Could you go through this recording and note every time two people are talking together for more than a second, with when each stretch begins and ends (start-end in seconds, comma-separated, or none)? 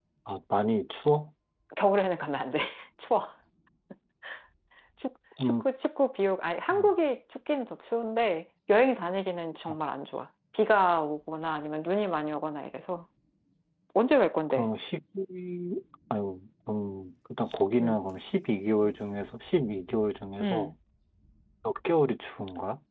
none